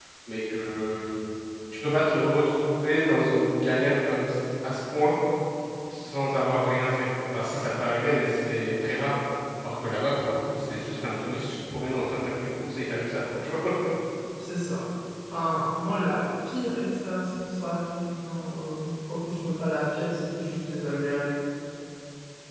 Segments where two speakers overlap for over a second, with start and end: none

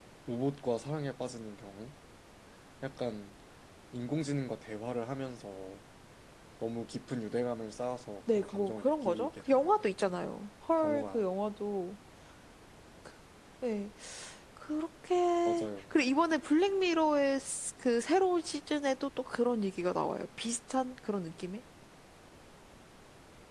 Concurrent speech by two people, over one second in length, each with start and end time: 8.3-9.8

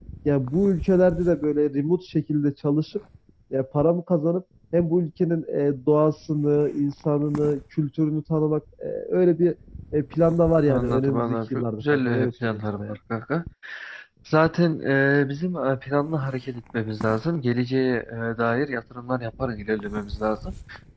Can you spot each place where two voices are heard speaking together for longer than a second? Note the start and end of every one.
10.6-13.0

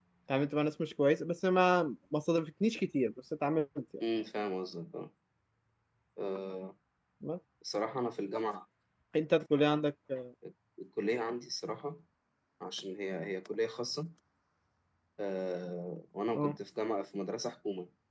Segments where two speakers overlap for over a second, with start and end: none

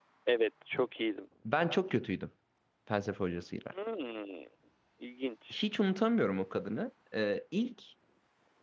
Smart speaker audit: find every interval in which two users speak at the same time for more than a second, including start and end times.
none

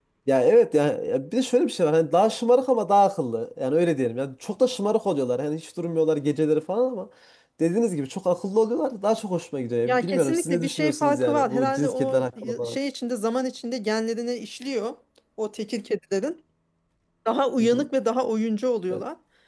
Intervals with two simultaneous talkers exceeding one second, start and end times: 9.9-12.8

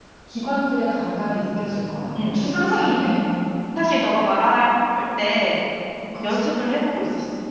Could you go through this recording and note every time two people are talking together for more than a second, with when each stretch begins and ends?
none

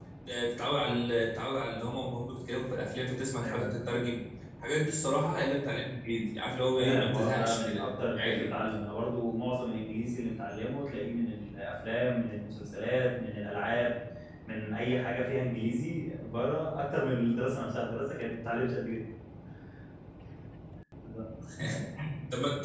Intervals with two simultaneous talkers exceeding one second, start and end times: 6.8-8.5

